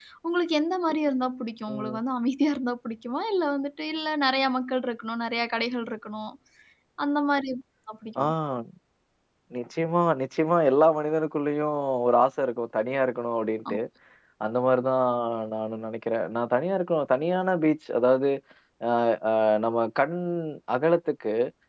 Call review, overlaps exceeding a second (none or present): none